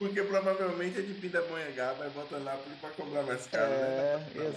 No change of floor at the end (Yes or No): No